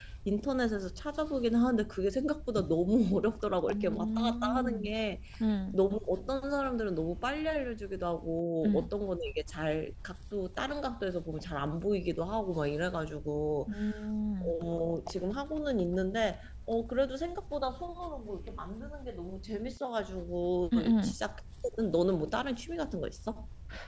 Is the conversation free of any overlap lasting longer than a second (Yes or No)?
No